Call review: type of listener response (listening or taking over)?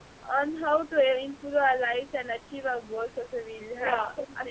taking over